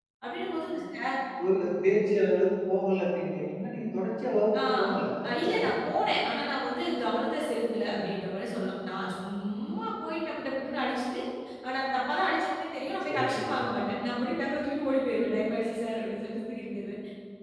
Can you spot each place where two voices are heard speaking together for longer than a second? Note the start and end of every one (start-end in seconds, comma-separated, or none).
none